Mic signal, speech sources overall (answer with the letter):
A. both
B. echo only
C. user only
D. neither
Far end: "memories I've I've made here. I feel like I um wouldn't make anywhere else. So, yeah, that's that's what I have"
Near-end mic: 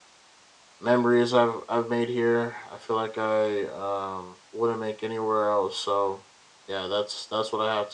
B